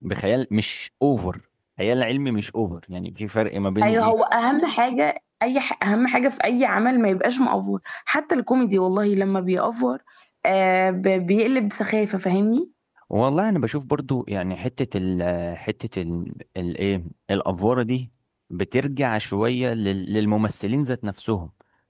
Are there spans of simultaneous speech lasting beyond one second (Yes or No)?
No